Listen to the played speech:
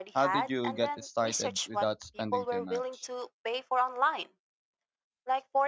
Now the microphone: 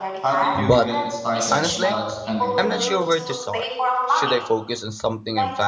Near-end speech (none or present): present